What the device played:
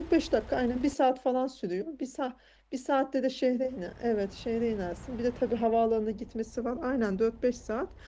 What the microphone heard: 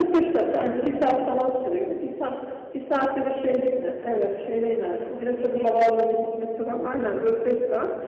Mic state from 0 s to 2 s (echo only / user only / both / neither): echo only